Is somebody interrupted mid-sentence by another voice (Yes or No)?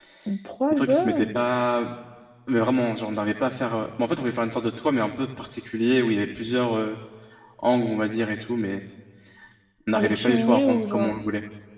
Yes